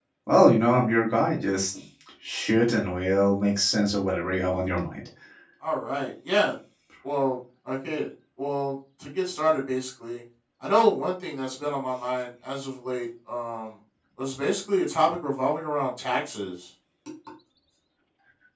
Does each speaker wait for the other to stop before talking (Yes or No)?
Yes